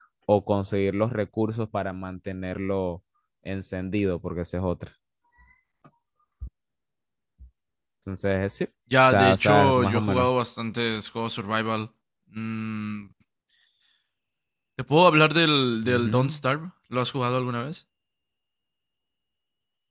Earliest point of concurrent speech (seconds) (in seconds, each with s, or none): 9.1 s